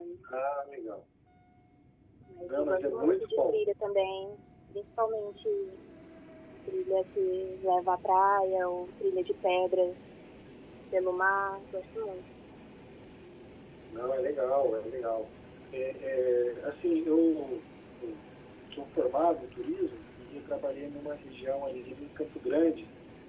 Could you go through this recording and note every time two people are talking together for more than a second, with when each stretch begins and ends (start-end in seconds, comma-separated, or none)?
2.4-3.6